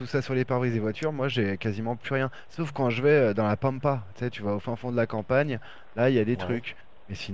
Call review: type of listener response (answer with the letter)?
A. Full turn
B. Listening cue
B